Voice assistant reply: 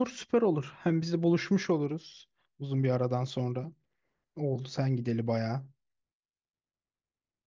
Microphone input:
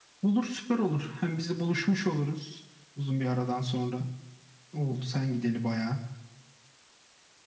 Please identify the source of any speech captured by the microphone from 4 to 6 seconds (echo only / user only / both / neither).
echo only